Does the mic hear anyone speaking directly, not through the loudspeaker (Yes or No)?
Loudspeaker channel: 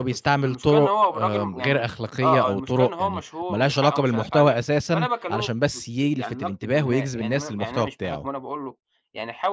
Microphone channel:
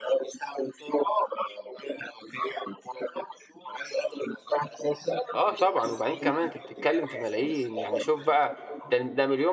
Yes